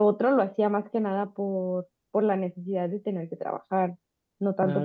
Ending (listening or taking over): listening